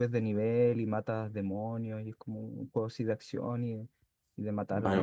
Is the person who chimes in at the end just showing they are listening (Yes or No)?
No